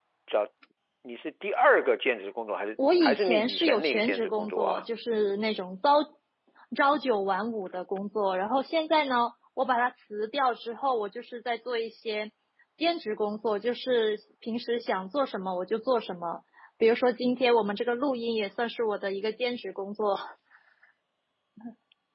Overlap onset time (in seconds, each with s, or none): 2.8 s